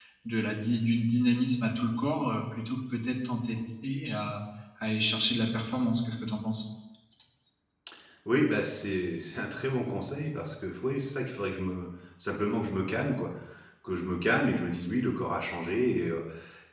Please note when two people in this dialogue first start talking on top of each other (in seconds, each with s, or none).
none